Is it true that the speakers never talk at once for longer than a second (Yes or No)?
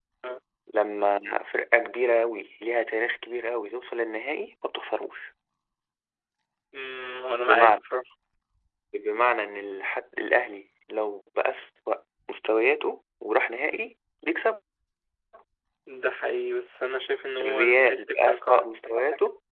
No